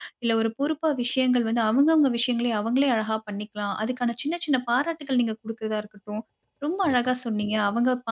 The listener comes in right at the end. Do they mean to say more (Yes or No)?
No